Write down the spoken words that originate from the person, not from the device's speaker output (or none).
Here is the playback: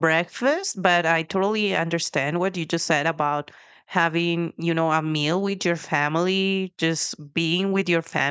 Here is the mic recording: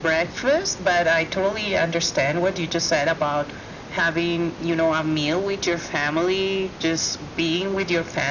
none